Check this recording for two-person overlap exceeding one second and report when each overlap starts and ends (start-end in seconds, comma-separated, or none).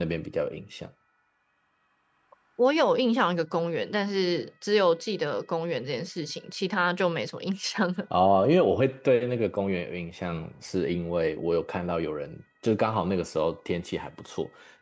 none